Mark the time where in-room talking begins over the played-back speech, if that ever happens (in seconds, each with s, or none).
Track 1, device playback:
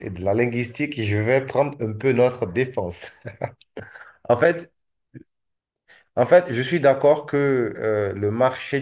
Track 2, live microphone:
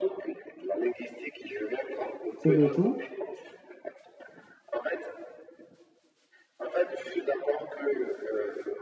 2.4 s